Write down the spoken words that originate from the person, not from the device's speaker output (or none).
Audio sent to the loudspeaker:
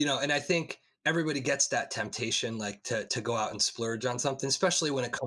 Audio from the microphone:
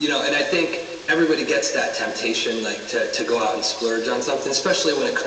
none